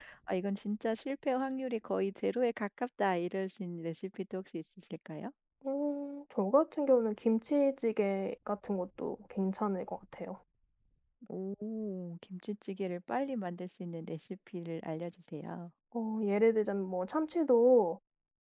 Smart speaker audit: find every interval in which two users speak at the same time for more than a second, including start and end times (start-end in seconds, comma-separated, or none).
none